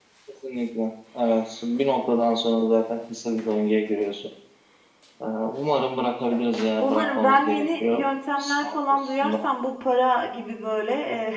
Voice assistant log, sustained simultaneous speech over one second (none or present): present